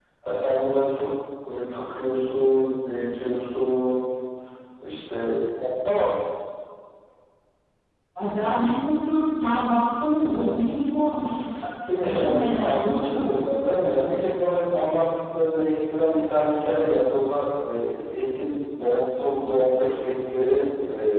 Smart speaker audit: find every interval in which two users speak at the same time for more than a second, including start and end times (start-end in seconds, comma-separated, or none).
12.0-13.7